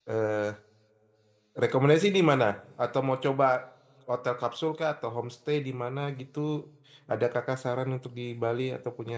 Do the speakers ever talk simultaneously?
No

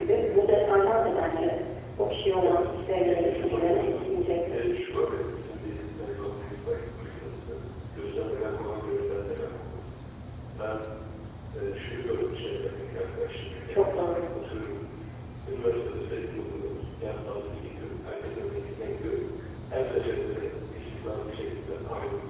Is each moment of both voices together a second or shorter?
No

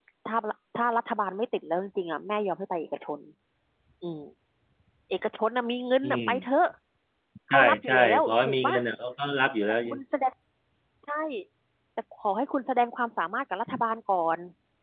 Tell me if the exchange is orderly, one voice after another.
No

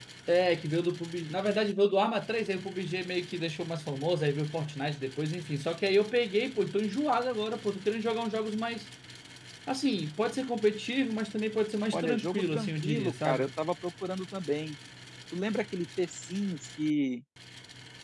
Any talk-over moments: Yes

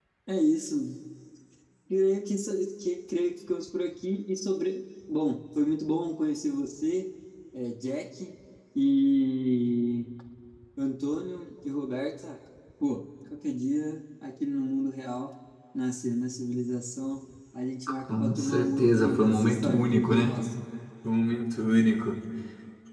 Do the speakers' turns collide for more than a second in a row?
Yes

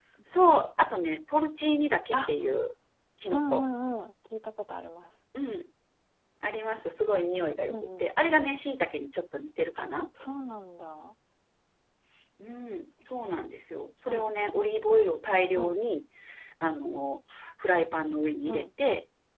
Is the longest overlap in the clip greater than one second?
No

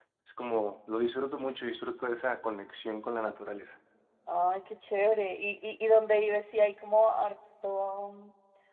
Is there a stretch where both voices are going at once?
No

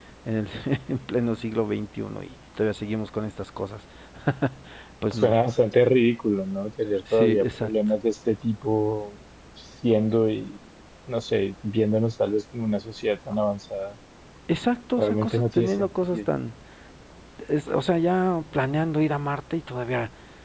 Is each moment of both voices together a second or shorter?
No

